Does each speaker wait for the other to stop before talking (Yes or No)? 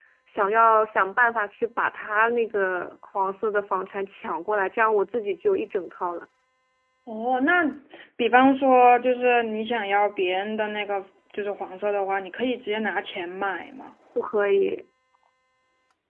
Yes